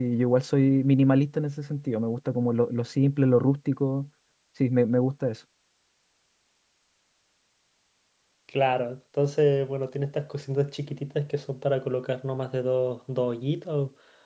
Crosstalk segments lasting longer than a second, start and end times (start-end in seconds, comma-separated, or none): none